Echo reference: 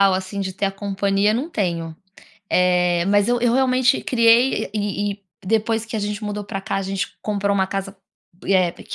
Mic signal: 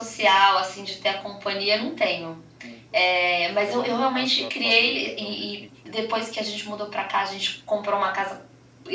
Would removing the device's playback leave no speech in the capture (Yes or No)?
No